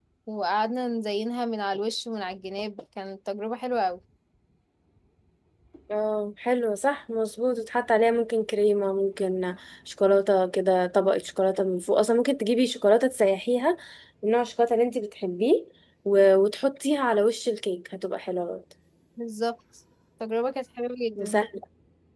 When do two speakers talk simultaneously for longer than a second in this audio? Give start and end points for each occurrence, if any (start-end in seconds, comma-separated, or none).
none